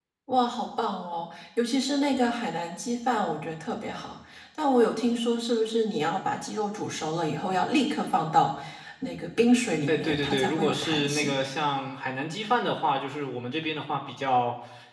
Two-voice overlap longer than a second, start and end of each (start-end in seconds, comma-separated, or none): 9.9-11.3